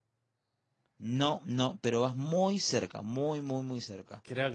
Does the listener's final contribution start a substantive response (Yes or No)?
Yes